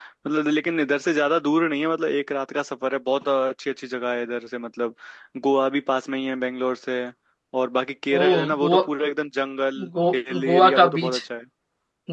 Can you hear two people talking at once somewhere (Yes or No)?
Yes